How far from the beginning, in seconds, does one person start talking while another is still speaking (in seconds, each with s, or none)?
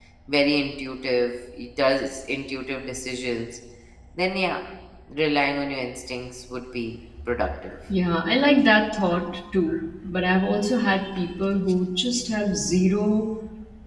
none